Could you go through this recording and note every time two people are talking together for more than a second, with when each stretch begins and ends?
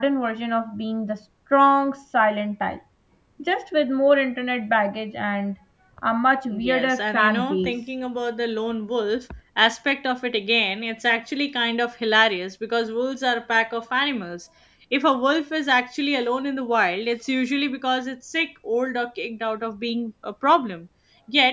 6.5-7.8

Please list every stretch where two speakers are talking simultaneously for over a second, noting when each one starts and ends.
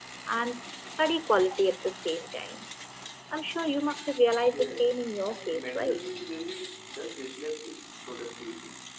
4.5-6.0

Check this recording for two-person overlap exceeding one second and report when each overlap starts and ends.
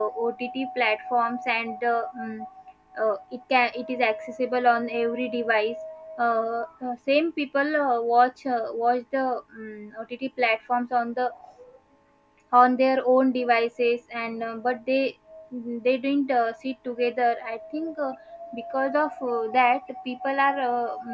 none

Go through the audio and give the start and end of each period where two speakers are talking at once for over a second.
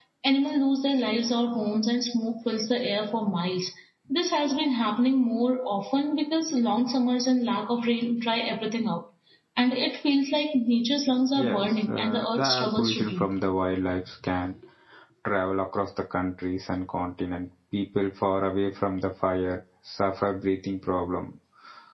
11.3-13.3

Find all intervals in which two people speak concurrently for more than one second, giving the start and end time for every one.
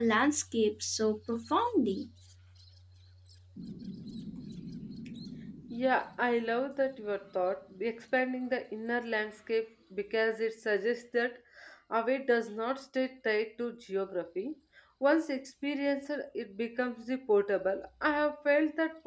none

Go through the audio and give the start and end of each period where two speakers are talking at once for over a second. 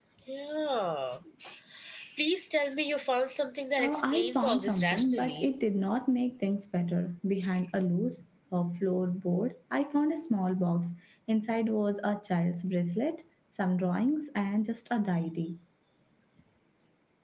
3.8-5.5

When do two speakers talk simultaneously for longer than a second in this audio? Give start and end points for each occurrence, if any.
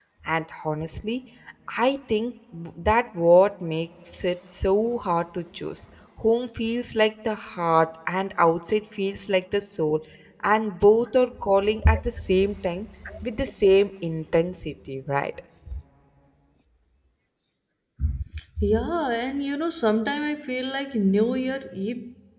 none

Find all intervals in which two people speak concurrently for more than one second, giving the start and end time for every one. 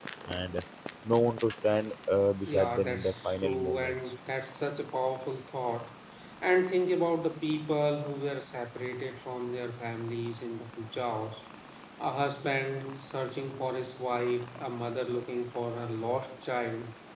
2.5-4.0

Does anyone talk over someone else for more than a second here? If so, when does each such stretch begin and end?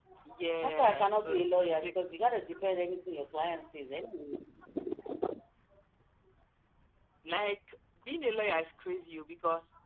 0.6-1.9

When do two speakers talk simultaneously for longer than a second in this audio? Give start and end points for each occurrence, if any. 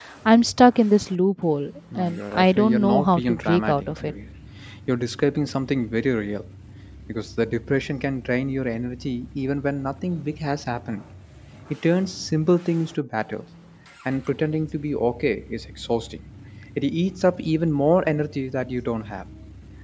2.0-4.1

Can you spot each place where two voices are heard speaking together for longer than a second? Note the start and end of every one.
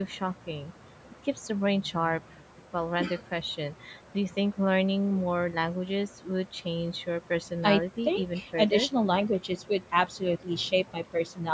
7.6-8.9

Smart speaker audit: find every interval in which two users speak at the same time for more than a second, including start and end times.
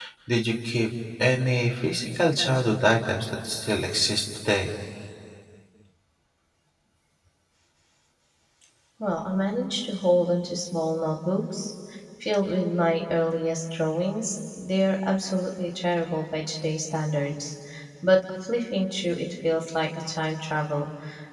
none

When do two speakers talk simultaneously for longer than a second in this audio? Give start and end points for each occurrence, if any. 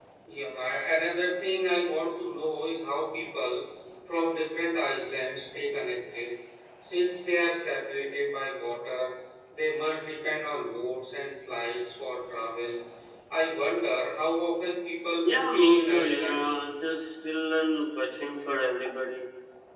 15.2-16.5

